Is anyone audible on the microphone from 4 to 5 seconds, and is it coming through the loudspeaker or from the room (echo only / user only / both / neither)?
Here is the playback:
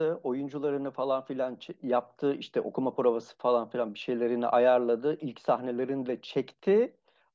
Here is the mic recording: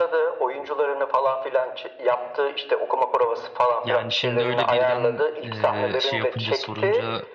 both